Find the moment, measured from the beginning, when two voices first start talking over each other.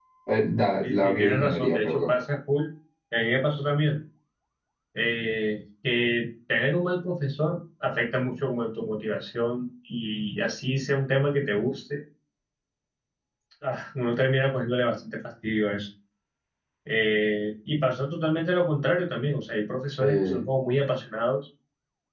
0.6 s

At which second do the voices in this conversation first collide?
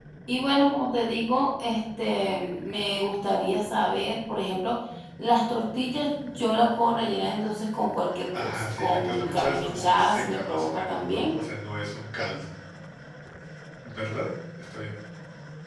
8.3 s

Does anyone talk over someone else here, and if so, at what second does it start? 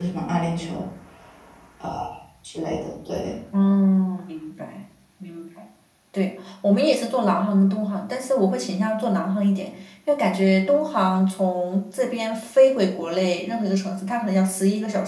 none

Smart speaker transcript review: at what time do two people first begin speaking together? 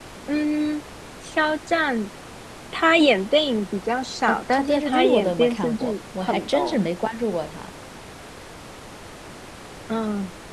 4.3 s

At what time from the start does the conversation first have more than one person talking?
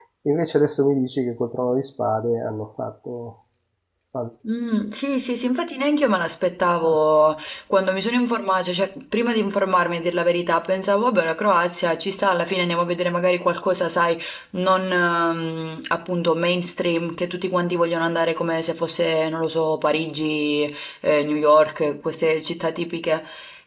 none

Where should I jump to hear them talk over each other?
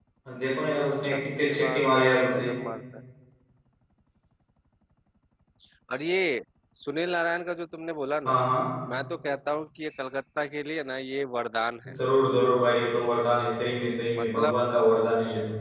1.0 s

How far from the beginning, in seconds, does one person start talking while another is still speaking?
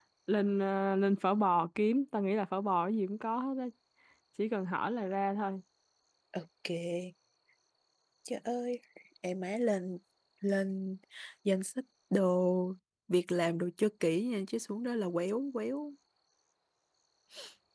none

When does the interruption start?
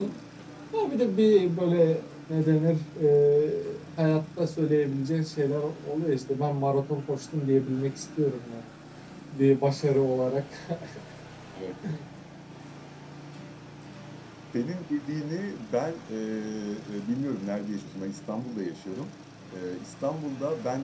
none

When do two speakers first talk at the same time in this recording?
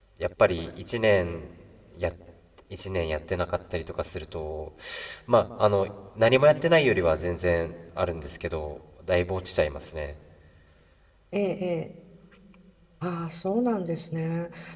none

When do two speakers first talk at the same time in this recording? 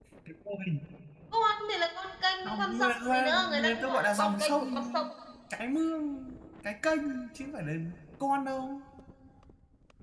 2.4 s

